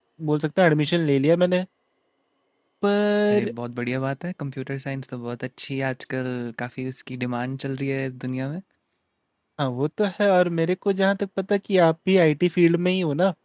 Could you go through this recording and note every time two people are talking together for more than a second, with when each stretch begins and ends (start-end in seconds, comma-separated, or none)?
none